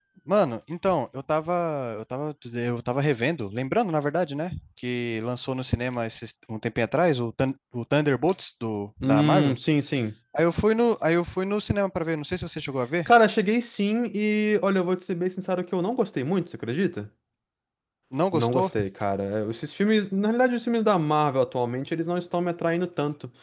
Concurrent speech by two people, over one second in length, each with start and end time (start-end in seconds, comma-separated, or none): none